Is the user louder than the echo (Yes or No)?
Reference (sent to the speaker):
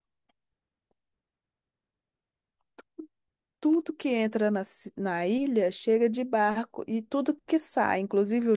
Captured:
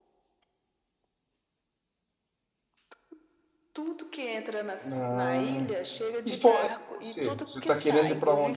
Yes